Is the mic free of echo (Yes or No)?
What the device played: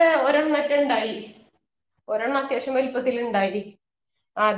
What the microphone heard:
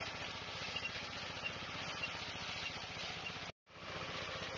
Yes